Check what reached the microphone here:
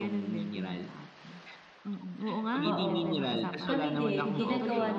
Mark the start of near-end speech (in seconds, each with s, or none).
2.6 s